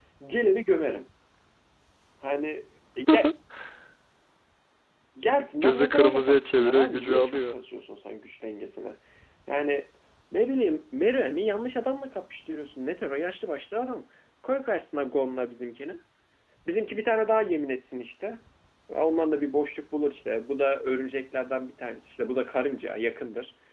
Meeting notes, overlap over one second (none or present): present